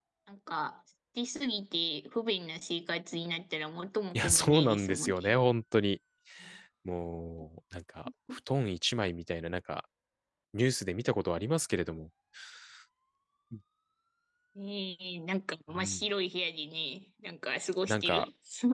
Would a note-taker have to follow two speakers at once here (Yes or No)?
Yes